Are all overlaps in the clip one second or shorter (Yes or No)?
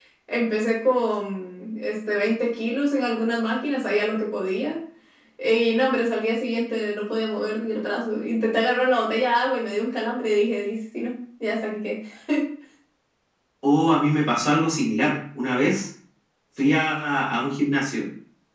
Yes